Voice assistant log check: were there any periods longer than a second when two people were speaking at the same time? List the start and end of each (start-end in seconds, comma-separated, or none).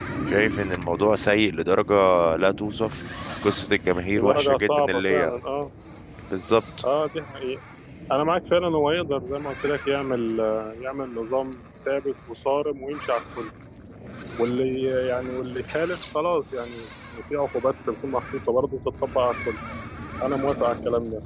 4.1-5.4